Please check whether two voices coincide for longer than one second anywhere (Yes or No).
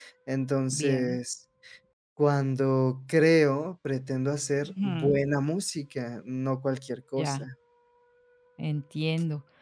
No